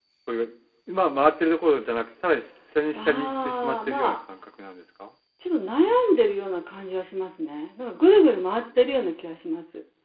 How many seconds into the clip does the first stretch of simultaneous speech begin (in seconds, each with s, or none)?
2.9 s